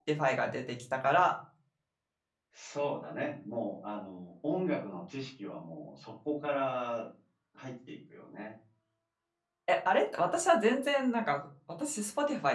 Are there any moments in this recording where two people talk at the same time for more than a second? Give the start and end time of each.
none

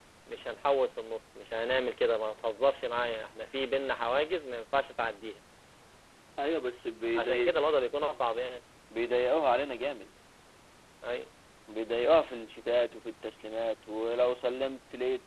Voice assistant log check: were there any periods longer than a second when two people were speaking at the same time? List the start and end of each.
none

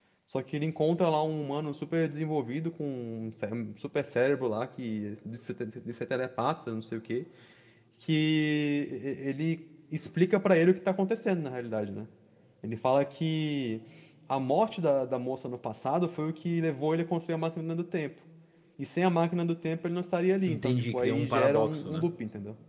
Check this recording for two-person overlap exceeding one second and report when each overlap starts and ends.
20.5-22.0

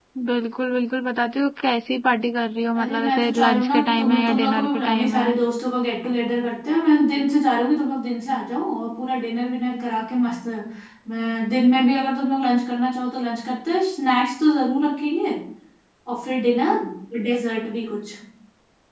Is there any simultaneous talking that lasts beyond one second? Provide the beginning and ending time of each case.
2.8-5.3

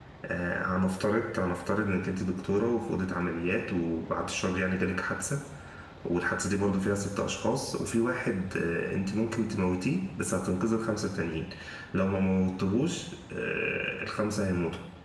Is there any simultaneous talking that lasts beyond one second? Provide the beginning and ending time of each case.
none

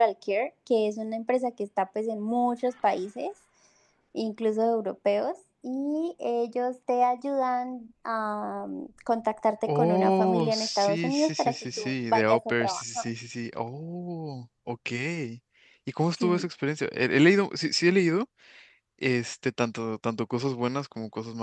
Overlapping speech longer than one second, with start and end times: 9.7-13.1

